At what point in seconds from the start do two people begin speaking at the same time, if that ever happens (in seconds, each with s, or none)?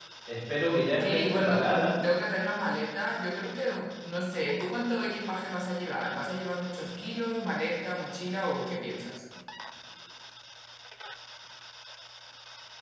0.7 s